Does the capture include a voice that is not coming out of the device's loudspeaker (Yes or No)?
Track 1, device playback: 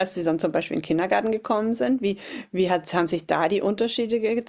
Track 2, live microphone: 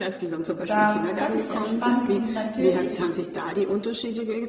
Yes